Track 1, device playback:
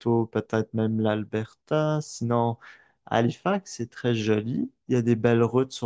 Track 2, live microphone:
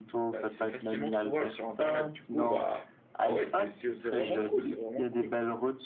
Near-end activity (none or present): present